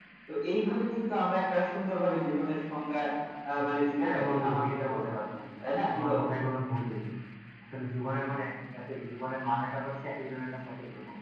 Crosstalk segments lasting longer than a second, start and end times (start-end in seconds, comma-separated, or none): 4.0-5.2